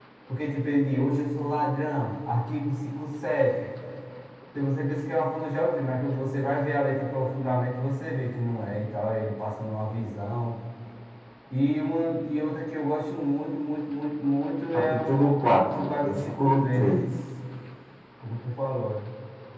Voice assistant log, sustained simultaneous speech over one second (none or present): present